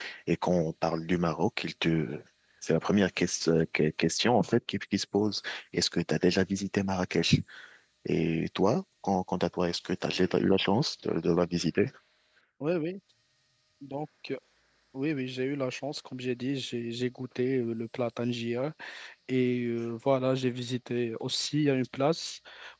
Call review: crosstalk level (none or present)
none